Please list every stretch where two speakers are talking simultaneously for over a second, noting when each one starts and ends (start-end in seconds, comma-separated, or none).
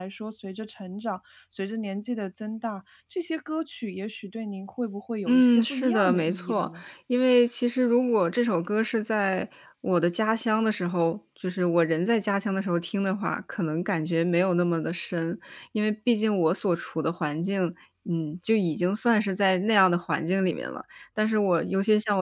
5.3-6.7